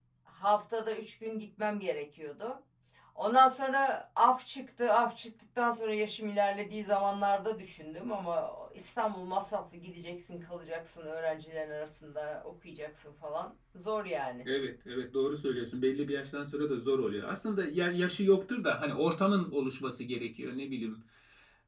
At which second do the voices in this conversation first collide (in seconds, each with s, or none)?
none